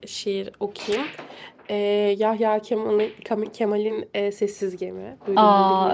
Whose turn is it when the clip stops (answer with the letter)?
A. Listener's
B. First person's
A